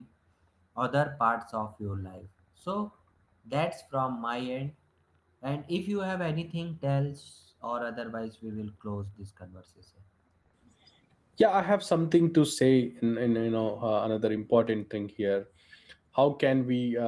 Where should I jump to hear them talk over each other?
none

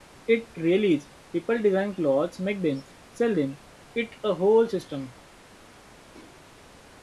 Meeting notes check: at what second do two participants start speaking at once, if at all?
none

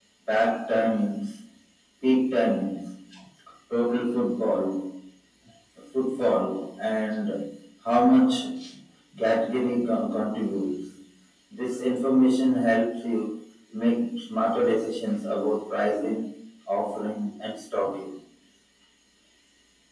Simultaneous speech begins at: none

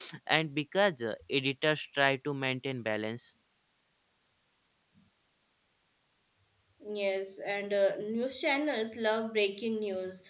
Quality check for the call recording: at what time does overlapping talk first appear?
none

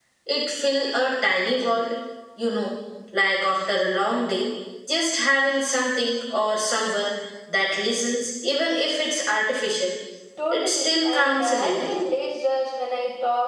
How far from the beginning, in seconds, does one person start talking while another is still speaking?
10.5 s

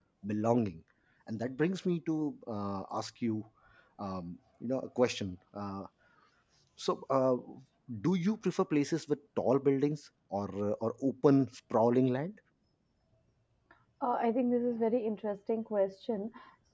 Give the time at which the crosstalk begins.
none

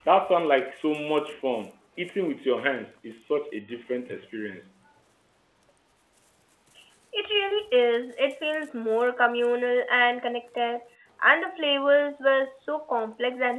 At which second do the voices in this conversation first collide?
none

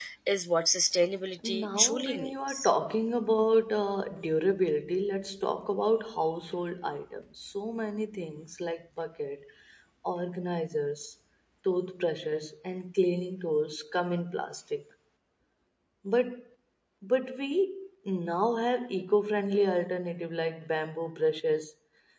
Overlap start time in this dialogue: 1.4 s

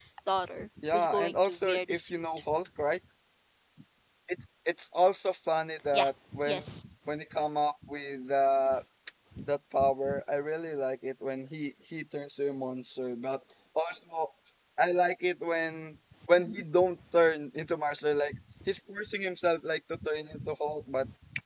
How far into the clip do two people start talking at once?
0.8 s

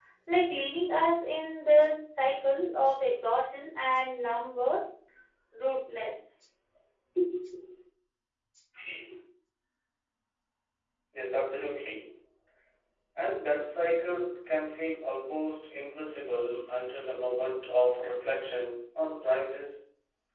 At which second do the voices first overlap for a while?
none

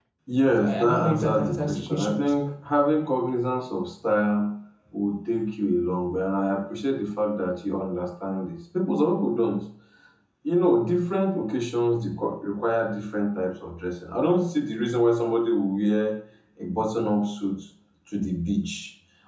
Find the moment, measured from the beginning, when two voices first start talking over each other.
0.6 s

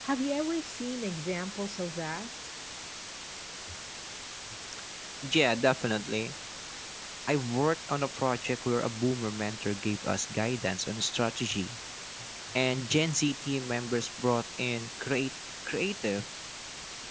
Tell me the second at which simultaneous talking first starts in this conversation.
none

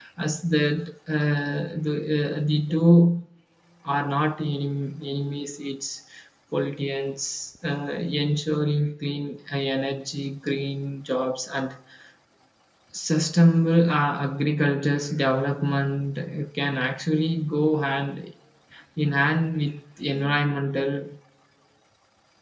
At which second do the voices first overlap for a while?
none

